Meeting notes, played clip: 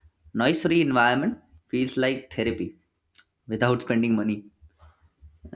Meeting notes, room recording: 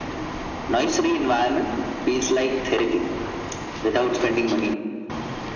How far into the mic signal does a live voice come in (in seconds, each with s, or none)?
none